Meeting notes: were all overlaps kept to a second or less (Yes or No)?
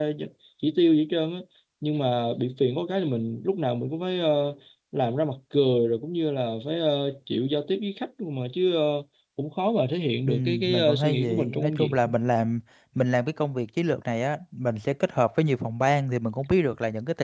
No